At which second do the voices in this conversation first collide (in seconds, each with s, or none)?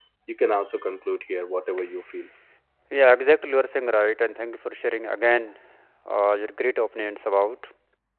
none